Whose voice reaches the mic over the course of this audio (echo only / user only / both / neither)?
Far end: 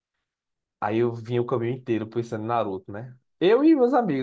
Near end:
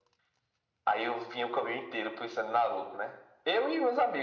echo only